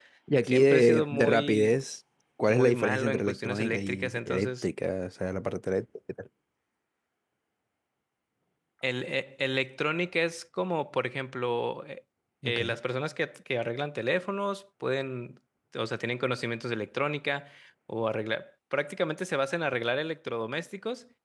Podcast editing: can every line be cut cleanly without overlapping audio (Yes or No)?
No